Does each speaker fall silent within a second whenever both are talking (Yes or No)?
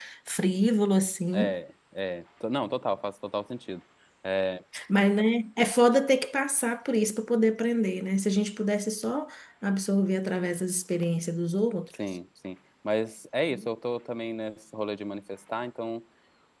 Yes